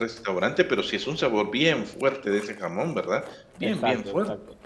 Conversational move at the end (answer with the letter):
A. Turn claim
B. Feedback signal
A